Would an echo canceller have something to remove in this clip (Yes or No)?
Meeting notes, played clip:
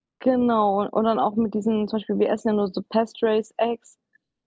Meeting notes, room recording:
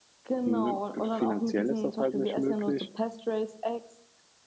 Yes